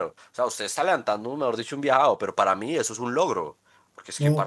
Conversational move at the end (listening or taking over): listening